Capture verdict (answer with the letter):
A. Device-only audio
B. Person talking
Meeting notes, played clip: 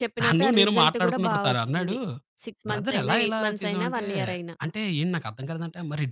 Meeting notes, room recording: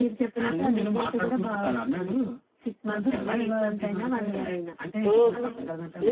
B